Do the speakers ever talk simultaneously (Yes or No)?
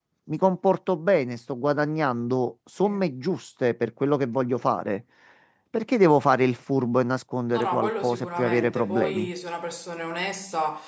Yes